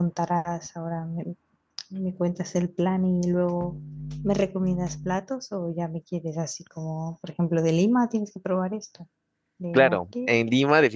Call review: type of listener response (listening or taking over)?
taking over